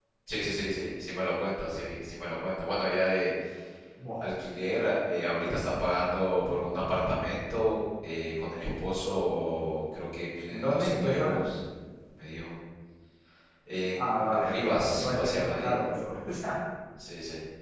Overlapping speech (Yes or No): Yes